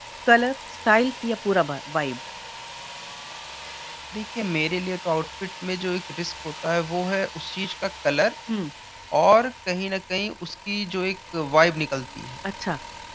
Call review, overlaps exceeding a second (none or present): none